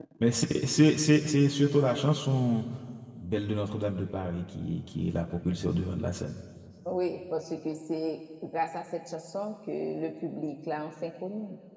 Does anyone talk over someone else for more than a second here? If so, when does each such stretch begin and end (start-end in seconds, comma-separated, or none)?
none